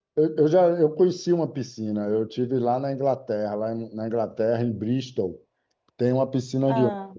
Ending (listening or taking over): listening